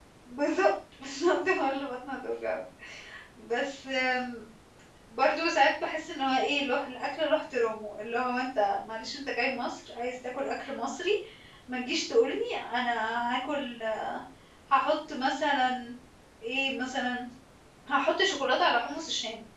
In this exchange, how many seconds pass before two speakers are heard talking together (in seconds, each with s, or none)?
none